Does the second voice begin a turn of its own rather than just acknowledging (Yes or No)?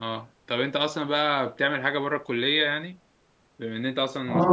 Yes